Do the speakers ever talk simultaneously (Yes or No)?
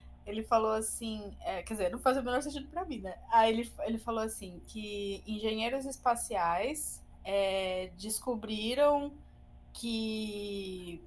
No